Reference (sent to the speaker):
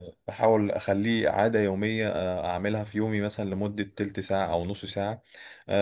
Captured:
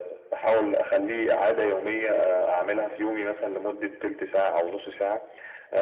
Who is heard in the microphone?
echo only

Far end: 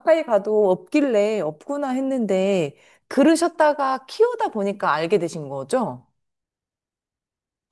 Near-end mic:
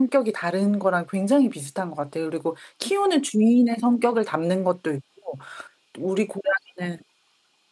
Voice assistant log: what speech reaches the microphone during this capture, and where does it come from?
user only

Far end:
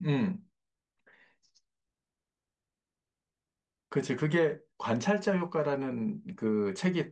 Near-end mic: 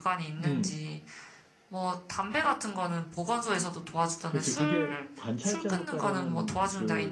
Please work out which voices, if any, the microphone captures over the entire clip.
both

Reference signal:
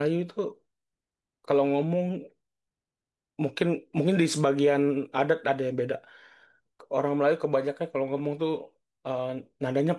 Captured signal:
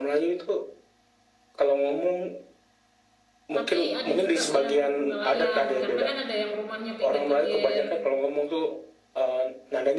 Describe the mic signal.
both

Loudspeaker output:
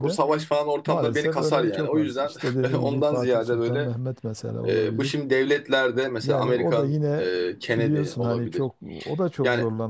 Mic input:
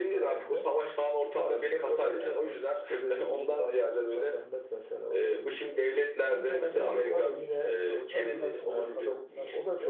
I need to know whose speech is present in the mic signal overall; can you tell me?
both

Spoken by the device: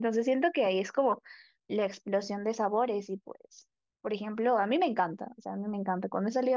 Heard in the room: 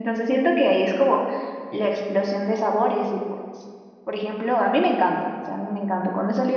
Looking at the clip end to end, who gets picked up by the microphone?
echo only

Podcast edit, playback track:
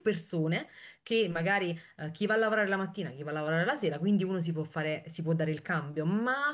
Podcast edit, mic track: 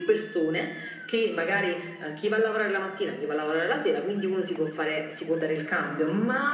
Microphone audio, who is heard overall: echo only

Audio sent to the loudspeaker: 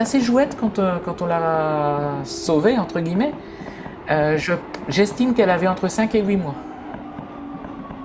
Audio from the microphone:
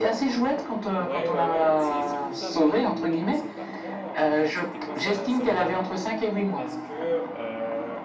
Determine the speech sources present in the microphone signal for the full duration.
both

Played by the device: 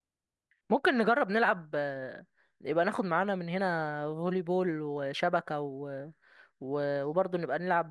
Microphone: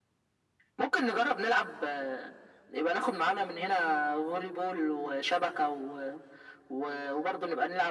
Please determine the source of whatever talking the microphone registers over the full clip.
echo only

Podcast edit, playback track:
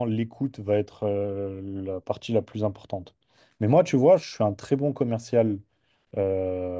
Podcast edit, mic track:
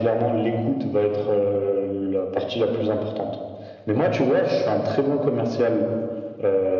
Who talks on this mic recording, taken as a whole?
echo only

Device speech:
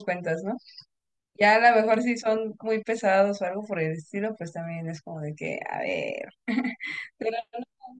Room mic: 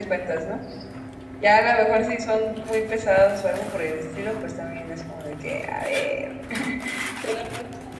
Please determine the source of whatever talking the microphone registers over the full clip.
echo only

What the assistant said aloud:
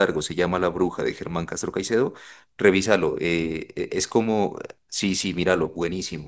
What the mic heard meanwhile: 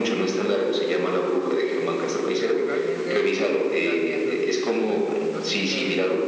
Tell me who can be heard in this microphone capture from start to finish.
both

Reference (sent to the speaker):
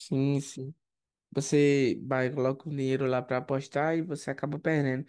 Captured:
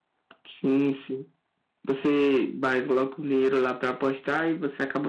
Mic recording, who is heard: echo only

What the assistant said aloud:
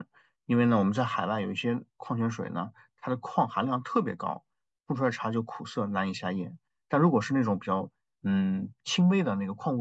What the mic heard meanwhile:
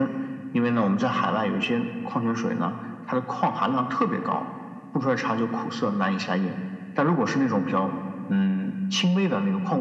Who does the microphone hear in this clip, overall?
echo only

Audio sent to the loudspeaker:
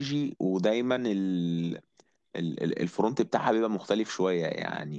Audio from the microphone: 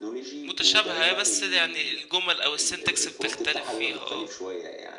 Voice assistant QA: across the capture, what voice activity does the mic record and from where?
both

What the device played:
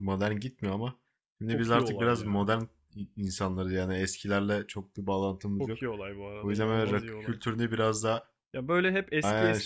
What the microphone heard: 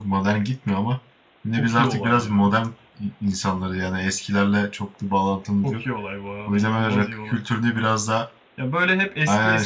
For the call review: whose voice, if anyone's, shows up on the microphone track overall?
echo only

